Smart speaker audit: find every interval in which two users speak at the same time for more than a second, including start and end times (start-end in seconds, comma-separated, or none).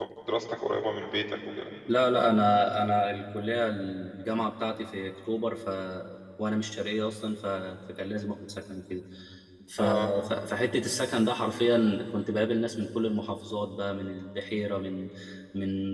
none